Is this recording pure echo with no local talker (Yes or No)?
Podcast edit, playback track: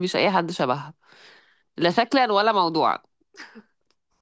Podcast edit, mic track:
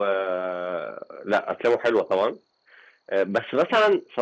No